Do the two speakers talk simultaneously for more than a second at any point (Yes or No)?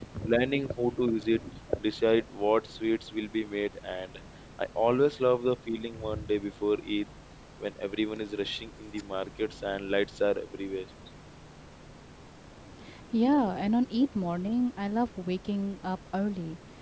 No